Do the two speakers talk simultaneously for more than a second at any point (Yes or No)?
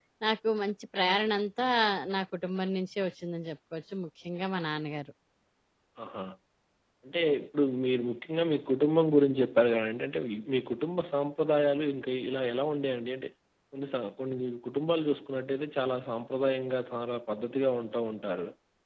No